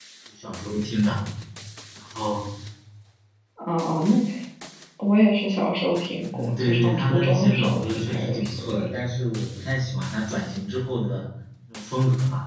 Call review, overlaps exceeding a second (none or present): present